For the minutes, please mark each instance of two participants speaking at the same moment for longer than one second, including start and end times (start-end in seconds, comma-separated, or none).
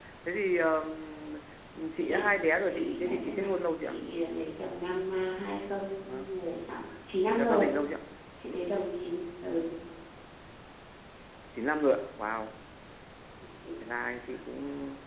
1.9-4.0